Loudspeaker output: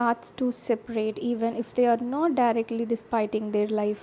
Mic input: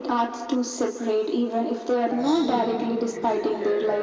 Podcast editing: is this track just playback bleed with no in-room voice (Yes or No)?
No